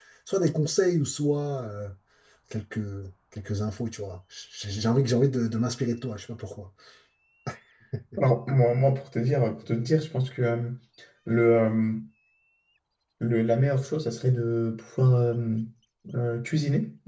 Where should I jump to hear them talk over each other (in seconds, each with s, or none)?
none